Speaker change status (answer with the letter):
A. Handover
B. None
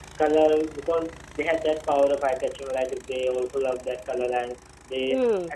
B